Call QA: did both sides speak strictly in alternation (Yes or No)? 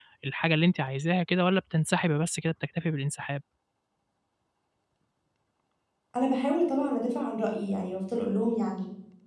Yes